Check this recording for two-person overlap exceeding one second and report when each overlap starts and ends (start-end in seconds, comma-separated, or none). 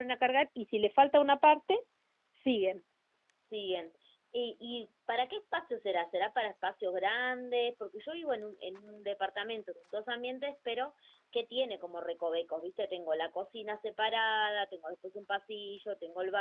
none